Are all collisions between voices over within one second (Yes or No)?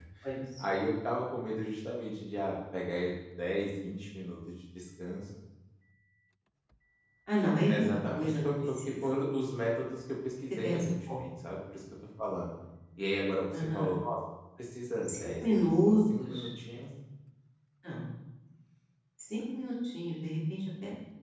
No